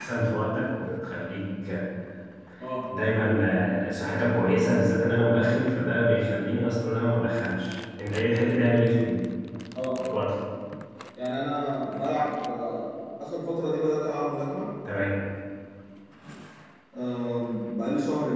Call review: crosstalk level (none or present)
none